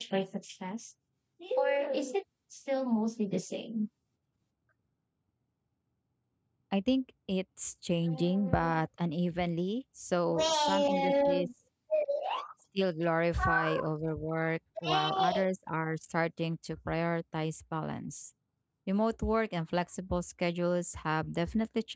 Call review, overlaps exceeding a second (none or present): present